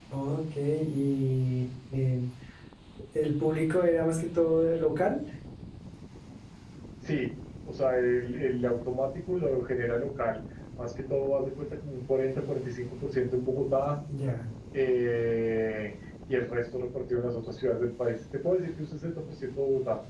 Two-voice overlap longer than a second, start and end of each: none

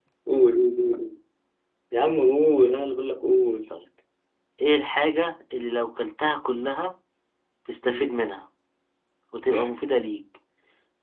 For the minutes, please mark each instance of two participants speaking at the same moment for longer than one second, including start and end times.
none

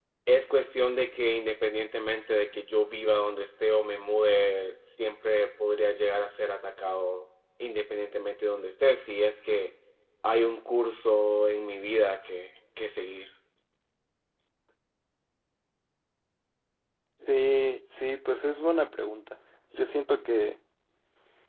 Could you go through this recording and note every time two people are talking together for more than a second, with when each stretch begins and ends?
none

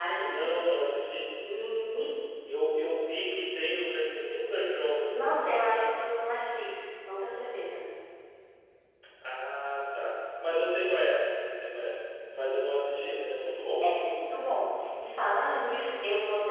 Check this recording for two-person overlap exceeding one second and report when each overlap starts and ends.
none

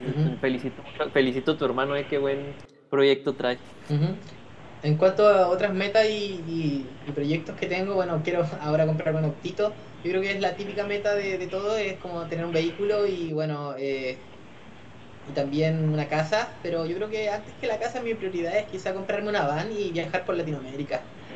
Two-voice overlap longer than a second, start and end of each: none

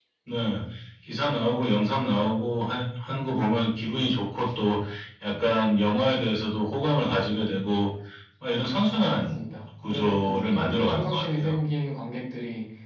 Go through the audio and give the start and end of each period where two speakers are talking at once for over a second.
9.9-11.5

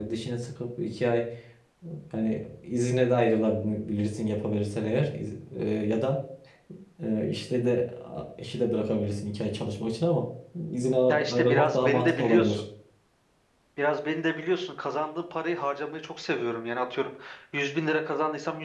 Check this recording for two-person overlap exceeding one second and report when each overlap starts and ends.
11.1-12.6

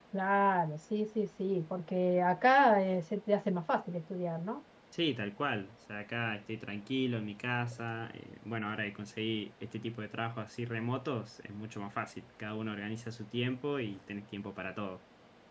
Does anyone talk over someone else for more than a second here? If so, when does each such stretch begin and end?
none

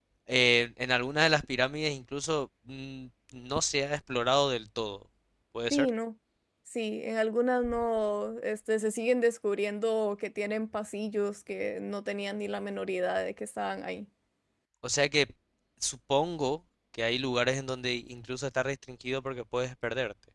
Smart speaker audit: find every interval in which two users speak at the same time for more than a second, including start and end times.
none

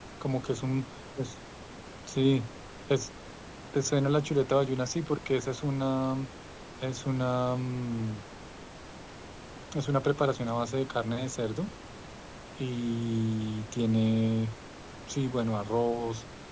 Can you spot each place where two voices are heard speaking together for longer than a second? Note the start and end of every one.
none

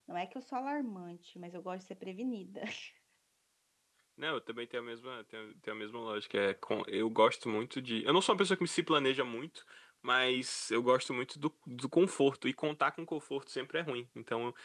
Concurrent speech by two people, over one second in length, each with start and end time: none

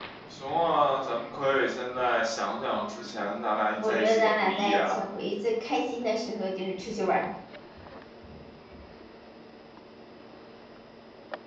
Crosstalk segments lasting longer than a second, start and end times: 3.8-5.0

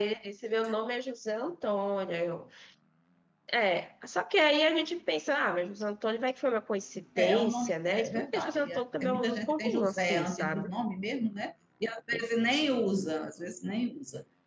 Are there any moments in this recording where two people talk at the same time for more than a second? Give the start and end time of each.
7.2-10.7

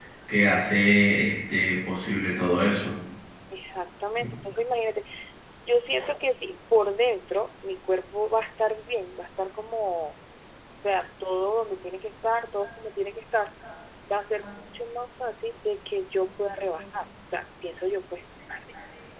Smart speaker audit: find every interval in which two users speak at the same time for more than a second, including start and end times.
none

